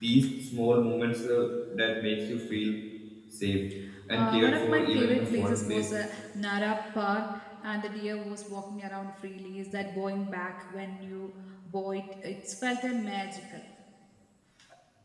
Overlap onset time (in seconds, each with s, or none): 4.1 s